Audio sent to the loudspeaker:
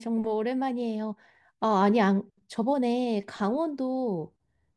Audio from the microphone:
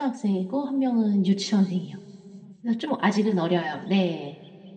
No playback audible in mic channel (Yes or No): Yes